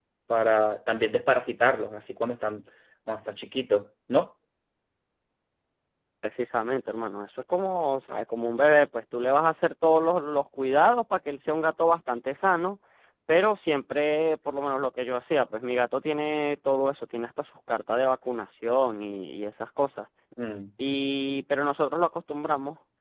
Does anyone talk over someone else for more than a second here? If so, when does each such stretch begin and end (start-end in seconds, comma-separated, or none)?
none